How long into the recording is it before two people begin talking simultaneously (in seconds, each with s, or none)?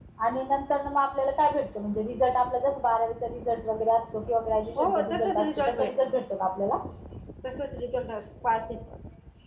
4.8 s